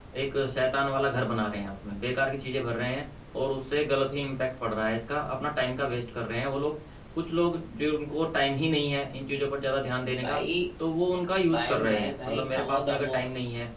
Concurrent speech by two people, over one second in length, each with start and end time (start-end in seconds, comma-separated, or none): 11.5-13.1